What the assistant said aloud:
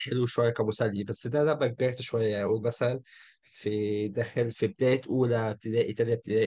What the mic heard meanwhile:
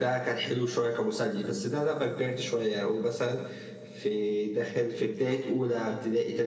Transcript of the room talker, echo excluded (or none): none